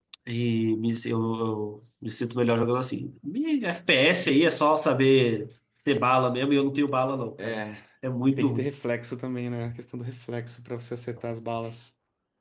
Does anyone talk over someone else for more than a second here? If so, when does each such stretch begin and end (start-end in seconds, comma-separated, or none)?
none